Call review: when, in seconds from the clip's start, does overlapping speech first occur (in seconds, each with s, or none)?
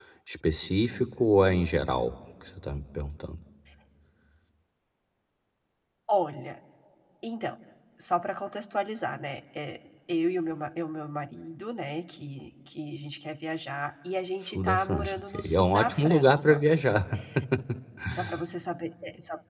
14.4 s